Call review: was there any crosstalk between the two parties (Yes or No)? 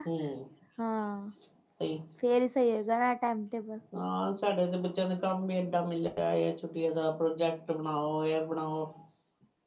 No